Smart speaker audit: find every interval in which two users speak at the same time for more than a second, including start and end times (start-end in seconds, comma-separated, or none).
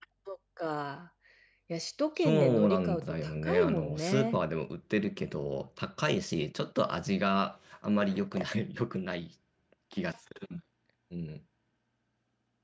2.2-4.4